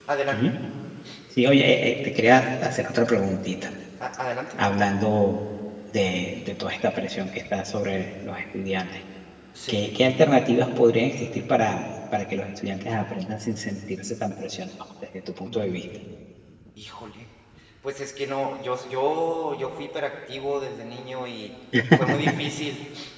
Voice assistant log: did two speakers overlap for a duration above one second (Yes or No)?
No